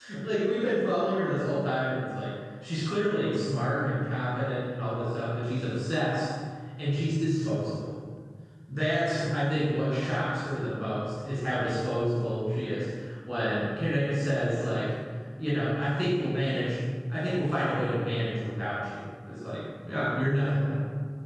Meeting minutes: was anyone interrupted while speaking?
No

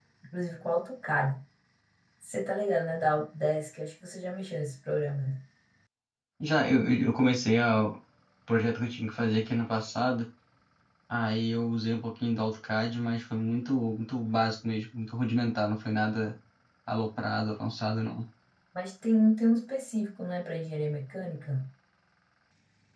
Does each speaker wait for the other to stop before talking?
Yes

